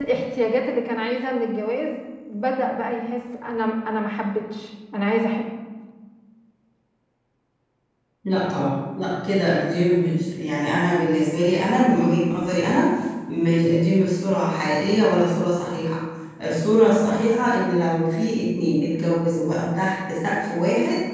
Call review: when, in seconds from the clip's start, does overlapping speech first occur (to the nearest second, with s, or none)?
none